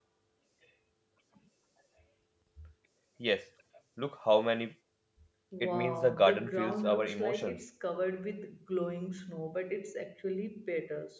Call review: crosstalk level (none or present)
present